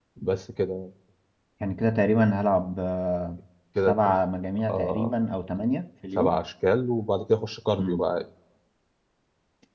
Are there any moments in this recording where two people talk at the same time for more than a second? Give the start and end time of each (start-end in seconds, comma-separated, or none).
none